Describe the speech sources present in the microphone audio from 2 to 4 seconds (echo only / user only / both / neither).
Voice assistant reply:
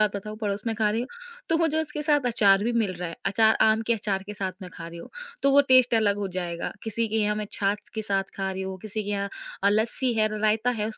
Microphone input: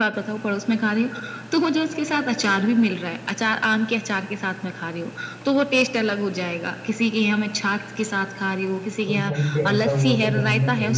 echo only